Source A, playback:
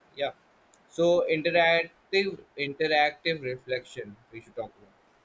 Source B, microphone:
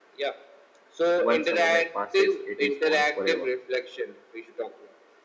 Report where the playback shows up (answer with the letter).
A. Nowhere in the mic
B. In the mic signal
B